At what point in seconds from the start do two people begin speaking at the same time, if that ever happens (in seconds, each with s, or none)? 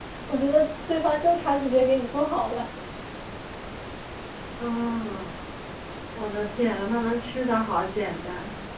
none